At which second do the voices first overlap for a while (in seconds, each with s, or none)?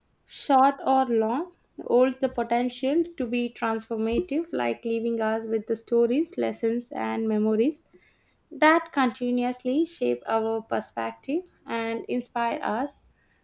none